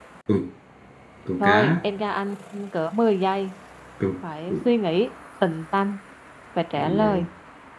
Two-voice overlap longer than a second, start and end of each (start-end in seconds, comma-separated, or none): none